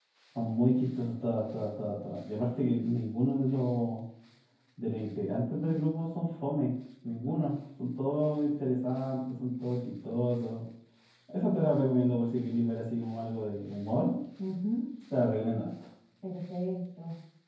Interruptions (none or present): none